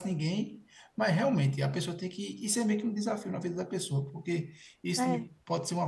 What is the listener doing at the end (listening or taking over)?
listening